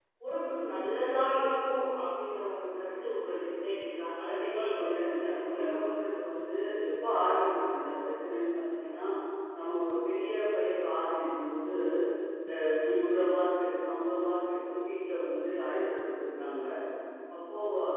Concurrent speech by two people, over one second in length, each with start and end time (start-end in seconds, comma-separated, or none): 4.3-5.8